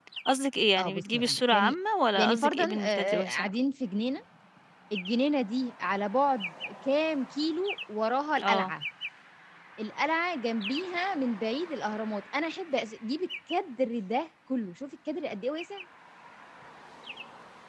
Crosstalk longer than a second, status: present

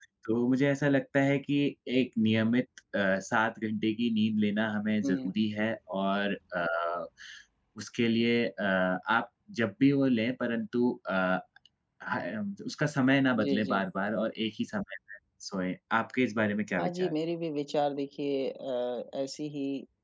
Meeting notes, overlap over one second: none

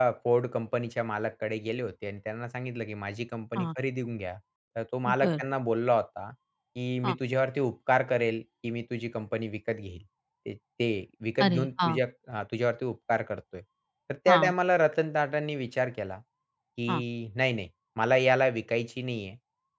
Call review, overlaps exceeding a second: none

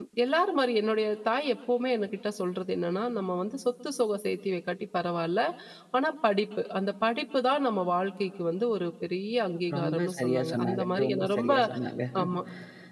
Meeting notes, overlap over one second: present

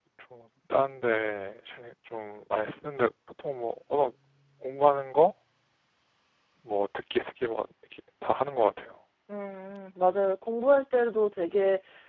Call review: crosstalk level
none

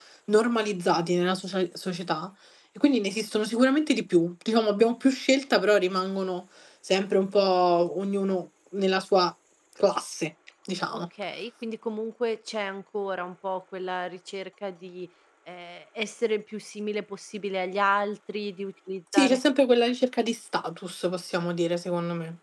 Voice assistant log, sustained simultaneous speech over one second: none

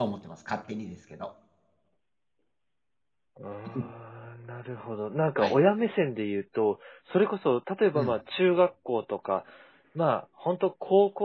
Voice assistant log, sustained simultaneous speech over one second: none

